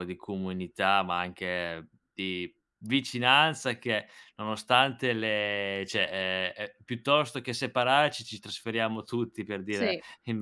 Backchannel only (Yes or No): Yes